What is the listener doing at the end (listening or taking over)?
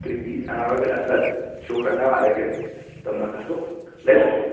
listening